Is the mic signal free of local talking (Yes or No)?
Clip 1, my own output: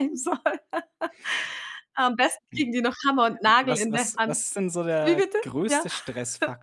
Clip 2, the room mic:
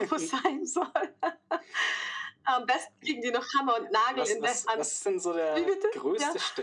Yes